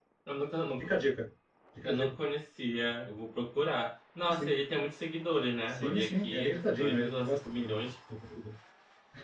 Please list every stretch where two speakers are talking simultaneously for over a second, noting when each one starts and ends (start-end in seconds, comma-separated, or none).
5.7-7.8